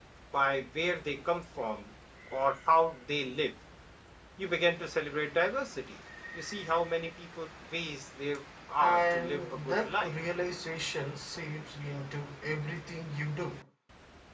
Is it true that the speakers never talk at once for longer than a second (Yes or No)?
No